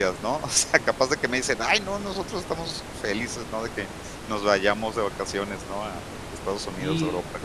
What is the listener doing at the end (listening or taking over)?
taking over